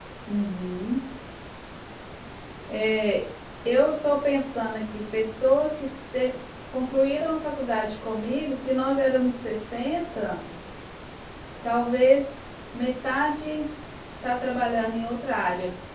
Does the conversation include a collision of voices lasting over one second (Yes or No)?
No